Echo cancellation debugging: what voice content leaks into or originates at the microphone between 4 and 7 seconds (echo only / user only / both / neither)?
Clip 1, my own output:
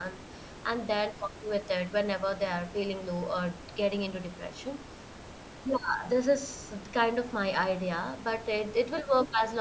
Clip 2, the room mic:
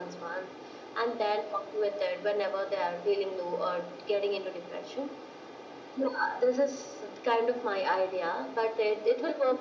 echo only